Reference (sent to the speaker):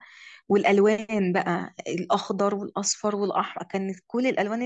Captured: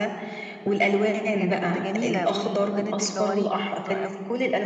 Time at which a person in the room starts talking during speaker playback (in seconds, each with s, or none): 1.3 s